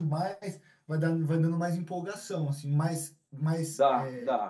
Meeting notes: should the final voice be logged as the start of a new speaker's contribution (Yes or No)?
Yes